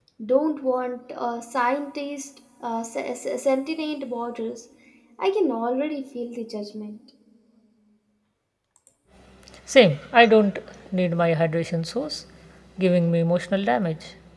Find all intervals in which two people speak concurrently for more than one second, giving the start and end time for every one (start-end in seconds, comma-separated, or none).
none